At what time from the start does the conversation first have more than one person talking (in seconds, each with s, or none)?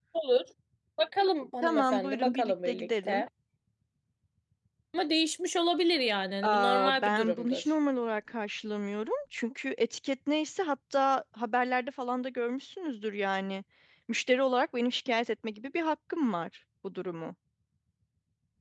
1.6 s